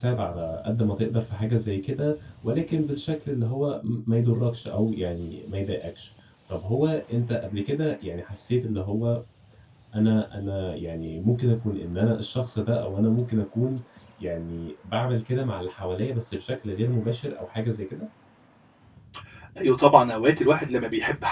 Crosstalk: none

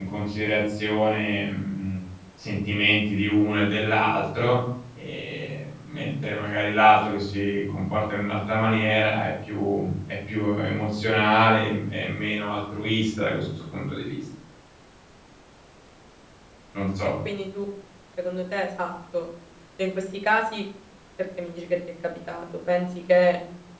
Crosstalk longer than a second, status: none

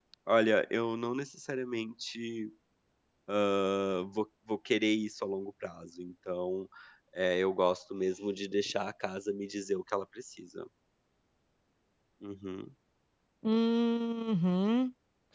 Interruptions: none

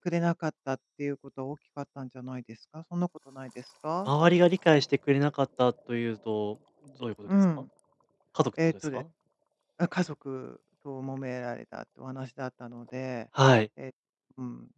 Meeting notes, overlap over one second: none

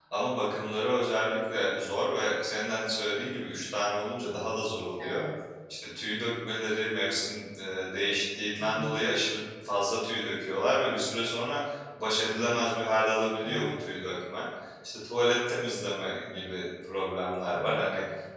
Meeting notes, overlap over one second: none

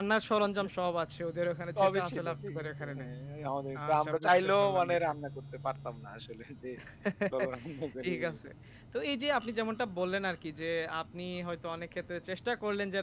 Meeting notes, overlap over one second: present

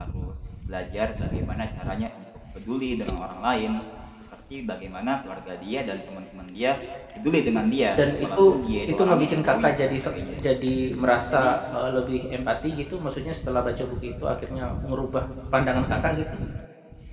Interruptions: present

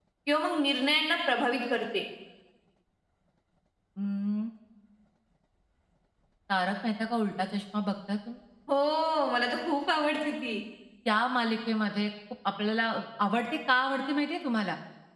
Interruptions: none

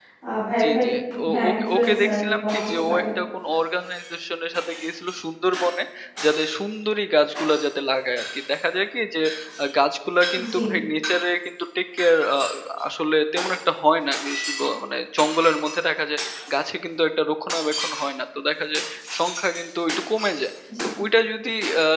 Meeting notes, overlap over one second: present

